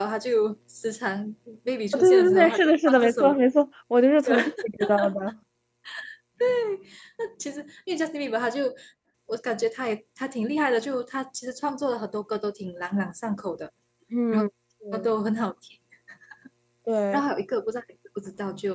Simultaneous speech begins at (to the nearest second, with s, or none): 2 s